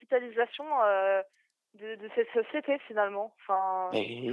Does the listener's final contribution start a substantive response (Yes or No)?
Yes